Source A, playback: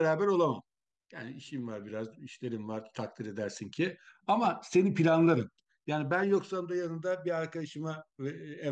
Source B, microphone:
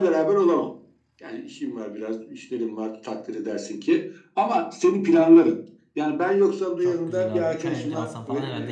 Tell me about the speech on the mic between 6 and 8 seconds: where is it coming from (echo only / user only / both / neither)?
both